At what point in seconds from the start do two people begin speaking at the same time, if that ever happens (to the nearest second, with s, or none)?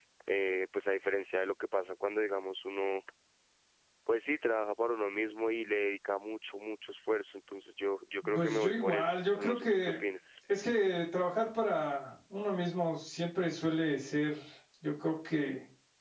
8 s